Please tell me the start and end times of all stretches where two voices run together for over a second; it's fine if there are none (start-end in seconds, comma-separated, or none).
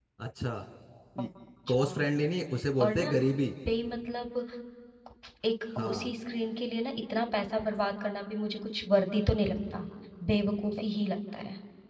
none